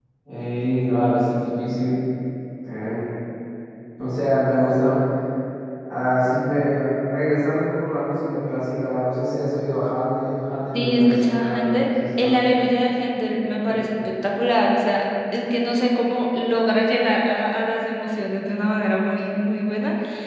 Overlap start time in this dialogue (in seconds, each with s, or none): 10.7 s